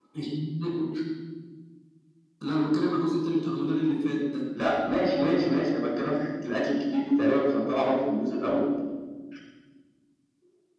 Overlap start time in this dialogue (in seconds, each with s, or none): none